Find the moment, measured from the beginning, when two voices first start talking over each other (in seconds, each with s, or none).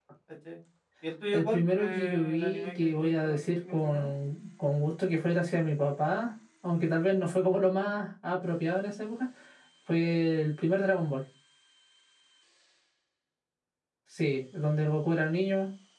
1.3 s